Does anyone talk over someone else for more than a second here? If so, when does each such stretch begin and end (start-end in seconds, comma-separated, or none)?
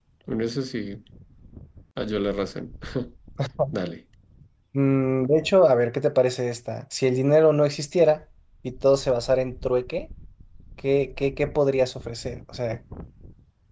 none